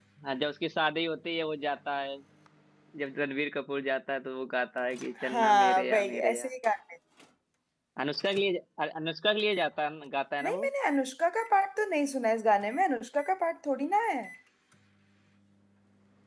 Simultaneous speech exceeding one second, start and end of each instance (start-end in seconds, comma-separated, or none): 5.3-6.5